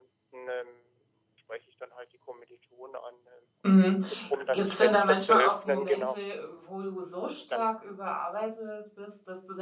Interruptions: present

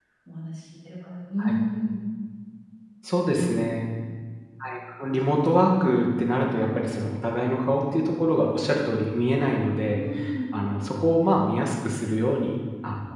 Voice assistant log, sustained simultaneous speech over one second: none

